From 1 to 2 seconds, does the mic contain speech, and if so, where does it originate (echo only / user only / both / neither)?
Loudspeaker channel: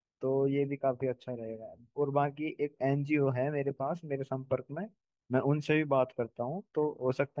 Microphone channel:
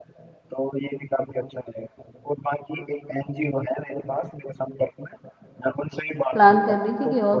echo only